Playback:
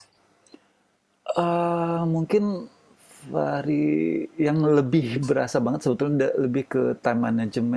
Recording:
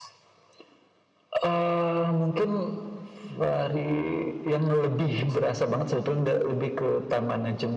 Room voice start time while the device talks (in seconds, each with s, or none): none